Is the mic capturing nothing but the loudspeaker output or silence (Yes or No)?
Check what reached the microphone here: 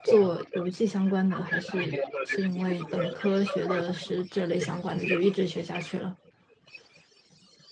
No